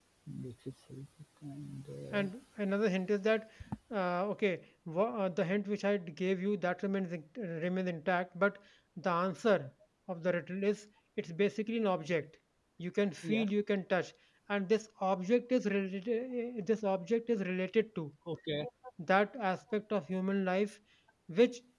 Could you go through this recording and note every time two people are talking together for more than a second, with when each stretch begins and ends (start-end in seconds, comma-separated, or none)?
none